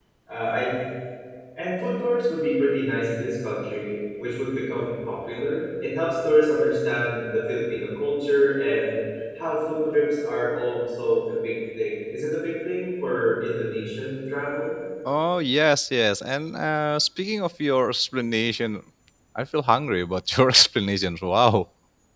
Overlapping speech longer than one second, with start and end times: none

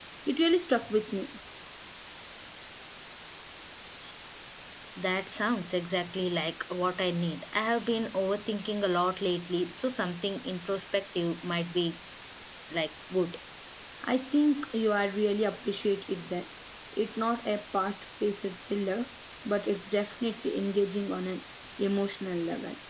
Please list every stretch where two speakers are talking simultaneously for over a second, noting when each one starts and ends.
none

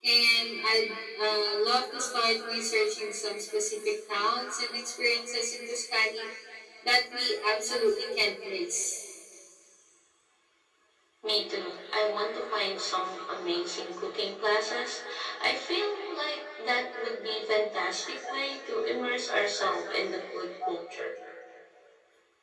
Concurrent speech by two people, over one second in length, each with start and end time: none

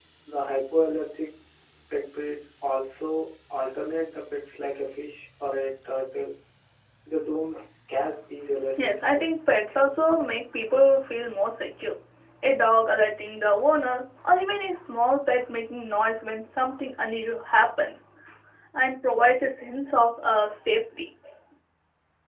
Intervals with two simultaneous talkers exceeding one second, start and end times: none

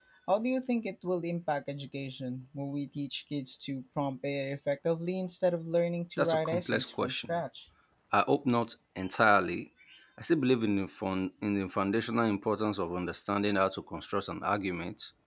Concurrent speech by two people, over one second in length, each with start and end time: 6.2-7.4

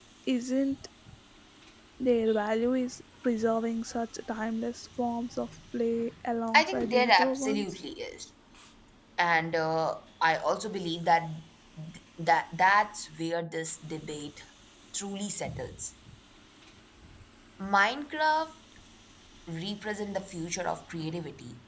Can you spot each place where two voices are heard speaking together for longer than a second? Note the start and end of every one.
6.5-7.8

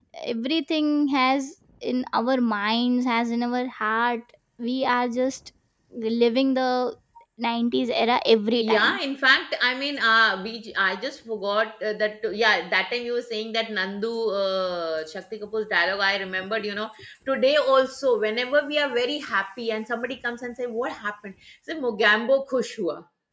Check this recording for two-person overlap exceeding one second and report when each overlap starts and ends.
none

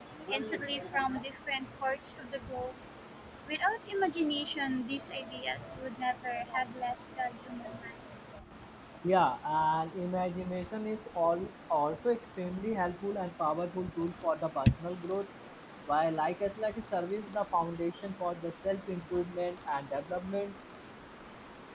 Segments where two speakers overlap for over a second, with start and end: none

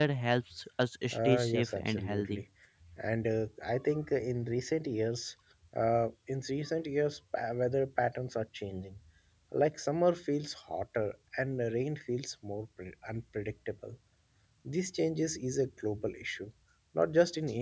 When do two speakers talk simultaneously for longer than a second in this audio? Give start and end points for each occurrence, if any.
1.1-2.4

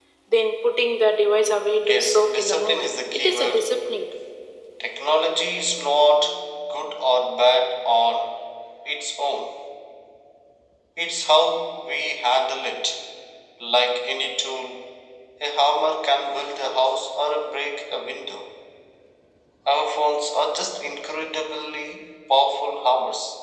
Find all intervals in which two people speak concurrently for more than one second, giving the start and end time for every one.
1.8-3.7

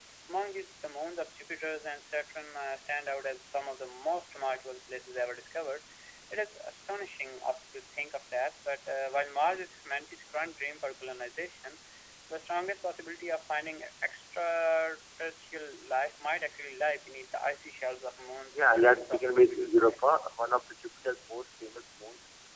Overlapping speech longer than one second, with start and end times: 18.5-20.0

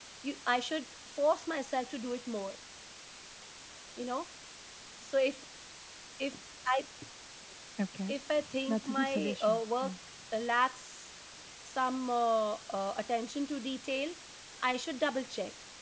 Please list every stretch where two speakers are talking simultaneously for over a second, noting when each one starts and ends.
8.7-9.9

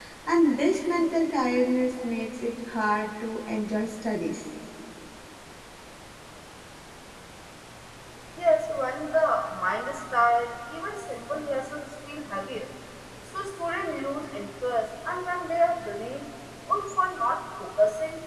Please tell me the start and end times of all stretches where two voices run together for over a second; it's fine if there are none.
none

